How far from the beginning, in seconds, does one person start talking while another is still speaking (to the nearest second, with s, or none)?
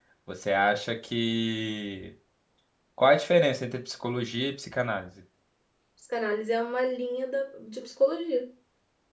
none